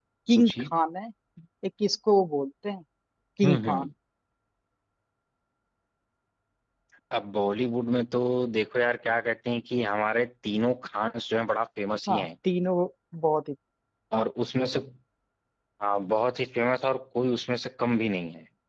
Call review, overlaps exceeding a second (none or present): none